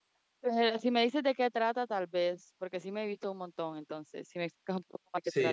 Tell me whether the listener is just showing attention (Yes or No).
No